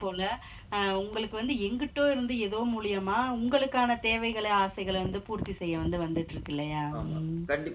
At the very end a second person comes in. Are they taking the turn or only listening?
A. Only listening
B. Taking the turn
B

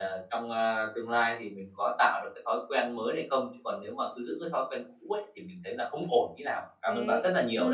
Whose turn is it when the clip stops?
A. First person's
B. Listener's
B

